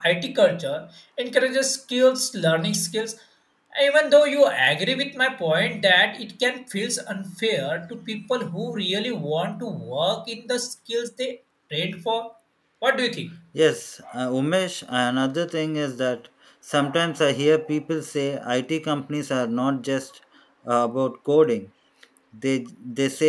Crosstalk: none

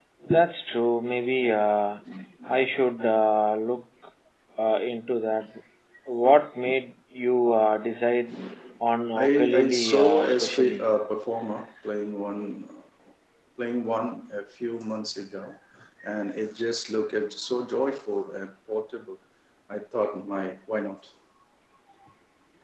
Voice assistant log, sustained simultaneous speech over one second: present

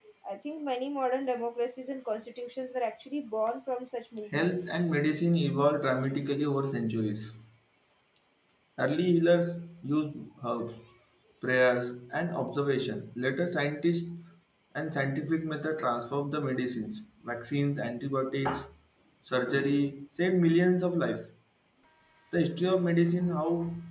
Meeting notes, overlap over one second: none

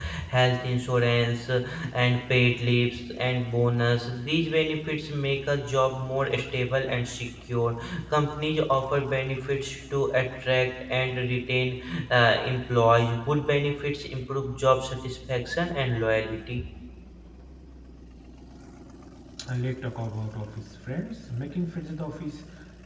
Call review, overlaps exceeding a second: none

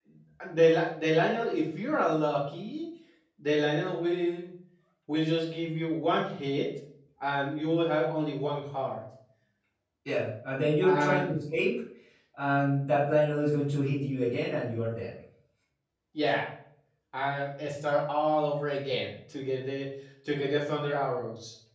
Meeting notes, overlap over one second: none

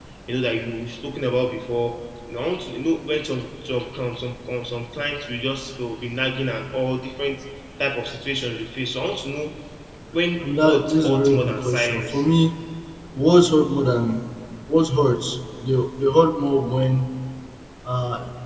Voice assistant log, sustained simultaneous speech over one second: present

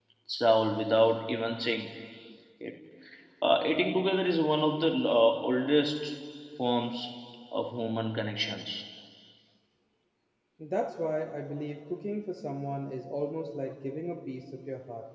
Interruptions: none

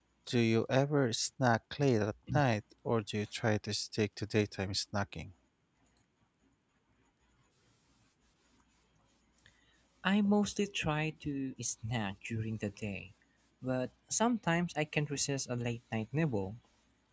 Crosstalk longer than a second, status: none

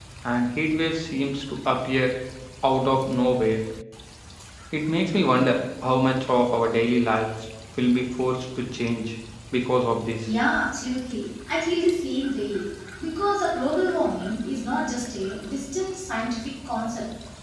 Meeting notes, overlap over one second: none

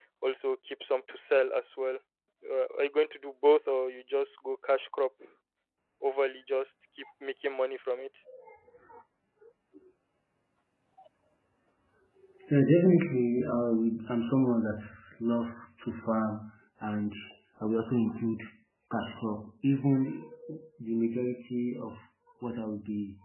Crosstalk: none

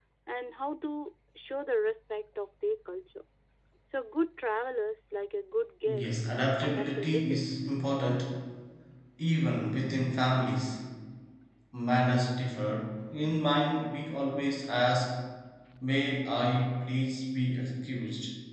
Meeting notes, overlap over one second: present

